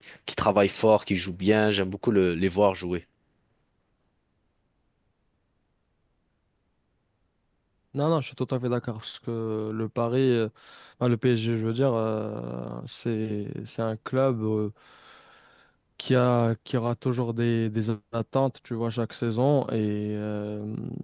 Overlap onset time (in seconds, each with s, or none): none